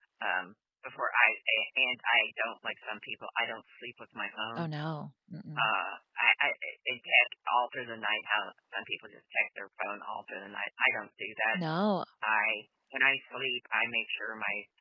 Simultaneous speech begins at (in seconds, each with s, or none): none